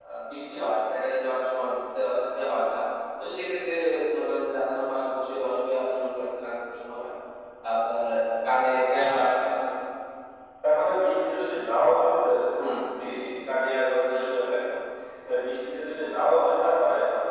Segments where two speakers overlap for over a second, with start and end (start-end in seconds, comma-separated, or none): none